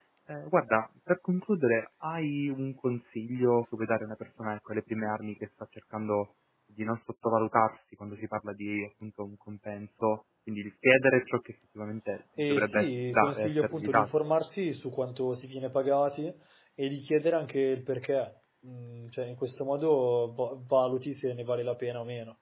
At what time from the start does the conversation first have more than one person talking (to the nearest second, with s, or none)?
12 s